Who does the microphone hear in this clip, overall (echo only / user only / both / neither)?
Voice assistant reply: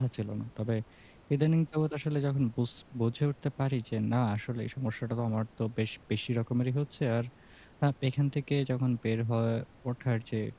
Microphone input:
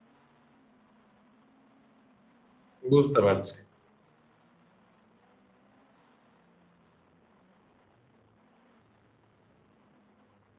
user only